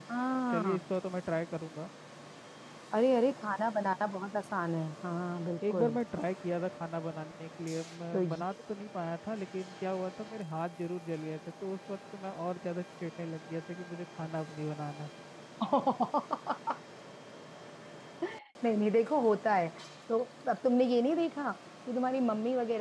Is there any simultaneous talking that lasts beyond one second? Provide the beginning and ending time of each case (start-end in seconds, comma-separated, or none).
none